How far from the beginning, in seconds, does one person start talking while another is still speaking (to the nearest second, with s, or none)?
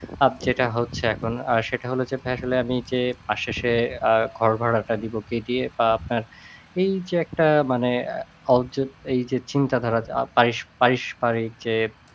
none